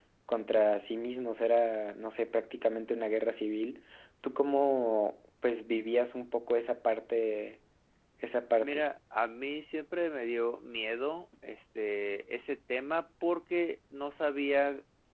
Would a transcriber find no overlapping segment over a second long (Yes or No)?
Yes